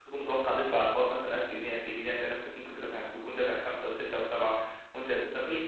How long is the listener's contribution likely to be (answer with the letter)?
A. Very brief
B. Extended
B